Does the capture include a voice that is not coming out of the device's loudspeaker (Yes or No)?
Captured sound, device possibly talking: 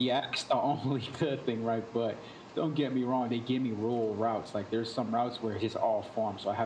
No